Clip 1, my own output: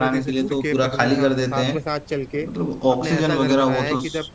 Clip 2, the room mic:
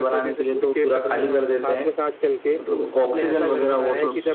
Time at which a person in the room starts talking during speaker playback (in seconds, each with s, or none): none